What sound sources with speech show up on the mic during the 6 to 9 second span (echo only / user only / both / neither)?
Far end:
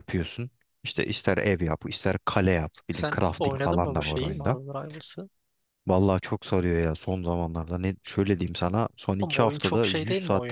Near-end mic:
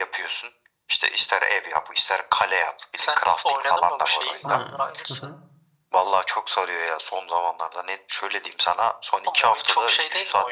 echo only